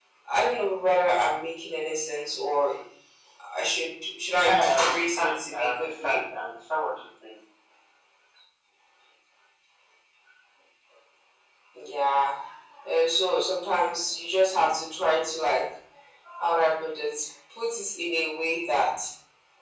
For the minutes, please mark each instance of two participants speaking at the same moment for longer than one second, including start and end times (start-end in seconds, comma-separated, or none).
4.3-6.2